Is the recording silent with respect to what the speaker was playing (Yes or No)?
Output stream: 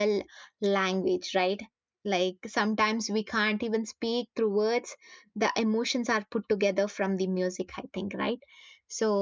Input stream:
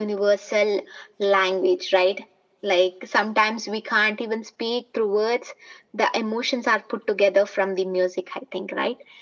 No